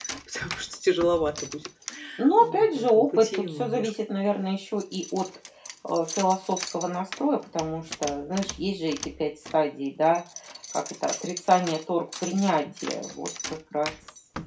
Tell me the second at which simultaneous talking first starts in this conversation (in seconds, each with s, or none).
2.4 s